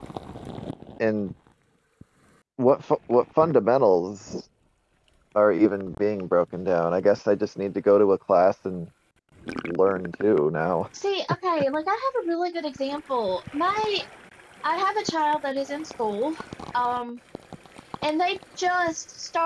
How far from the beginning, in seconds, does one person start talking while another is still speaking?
none

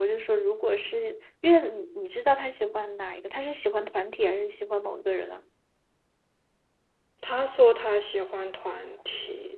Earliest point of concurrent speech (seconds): none

